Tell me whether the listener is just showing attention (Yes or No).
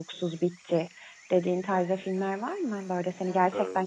Yes